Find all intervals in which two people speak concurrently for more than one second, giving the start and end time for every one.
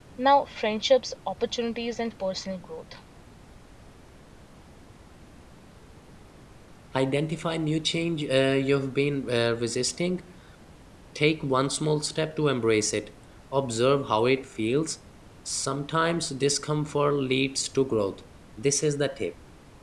none

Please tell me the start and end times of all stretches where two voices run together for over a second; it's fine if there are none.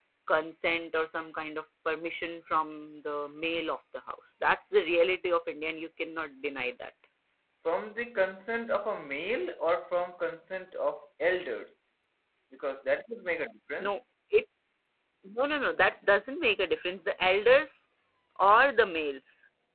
none

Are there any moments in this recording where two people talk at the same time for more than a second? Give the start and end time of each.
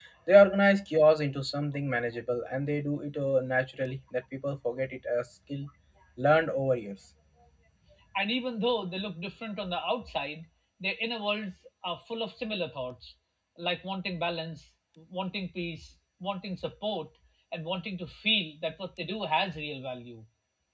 none

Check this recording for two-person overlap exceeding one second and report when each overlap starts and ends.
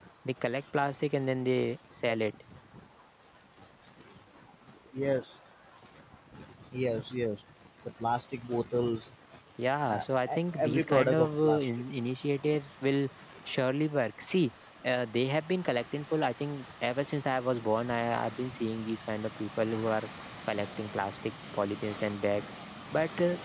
9.9-11.7

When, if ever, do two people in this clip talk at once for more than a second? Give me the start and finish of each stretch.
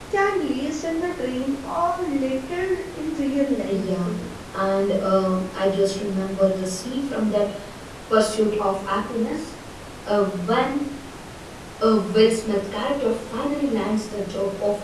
none

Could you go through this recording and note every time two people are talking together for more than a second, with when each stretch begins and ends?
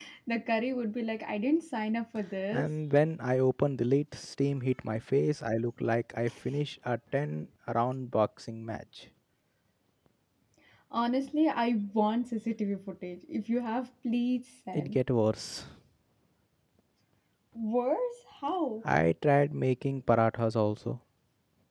none

